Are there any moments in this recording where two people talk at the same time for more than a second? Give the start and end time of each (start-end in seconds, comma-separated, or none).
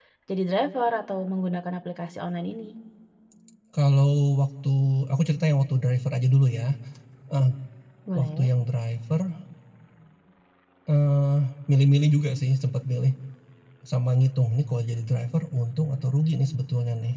none